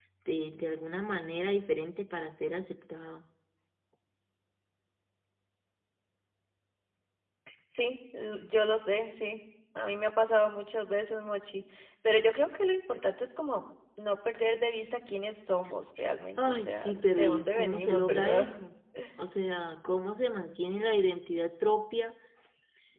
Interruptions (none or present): present